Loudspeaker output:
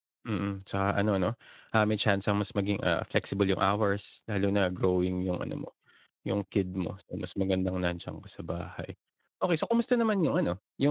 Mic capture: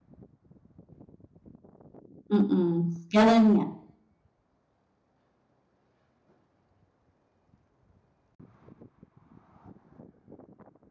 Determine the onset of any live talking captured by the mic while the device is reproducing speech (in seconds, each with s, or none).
2.3 s